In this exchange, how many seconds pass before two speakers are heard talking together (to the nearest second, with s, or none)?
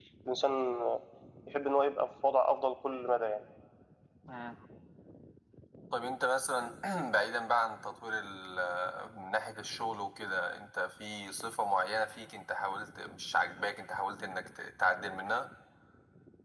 none